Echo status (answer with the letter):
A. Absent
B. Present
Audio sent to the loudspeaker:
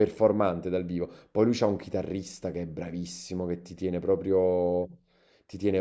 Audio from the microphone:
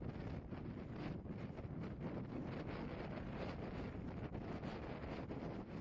A